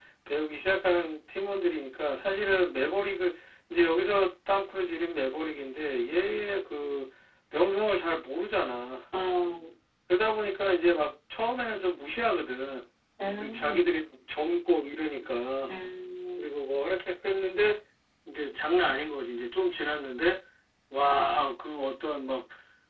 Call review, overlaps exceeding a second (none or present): none